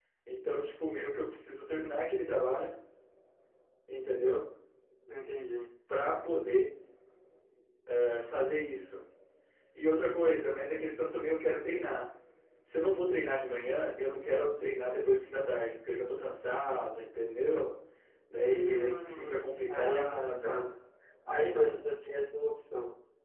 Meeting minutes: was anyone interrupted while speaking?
Yes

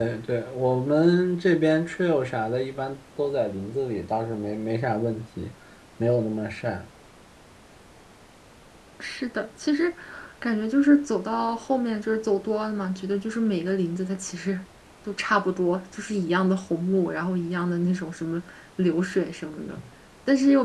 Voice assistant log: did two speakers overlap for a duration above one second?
No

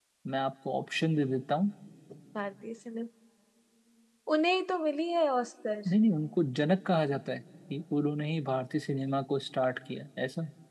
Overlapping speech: No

